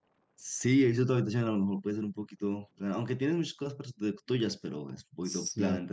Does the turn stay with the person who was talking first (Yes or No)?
No